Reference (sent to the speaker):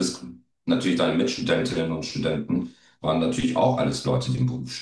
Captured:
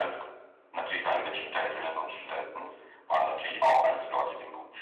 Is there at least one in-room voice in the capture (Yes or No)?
No